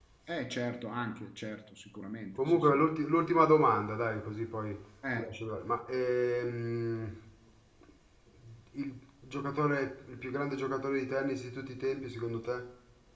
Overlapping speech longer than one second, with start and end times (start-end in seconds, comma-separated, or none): none